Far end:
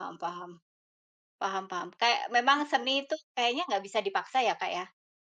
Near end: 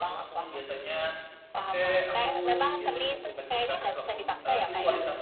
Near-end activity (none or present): present